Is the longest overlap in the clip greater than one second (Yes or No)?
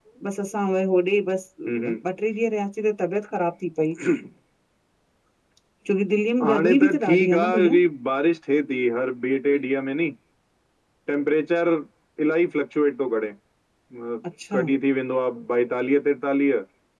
Yes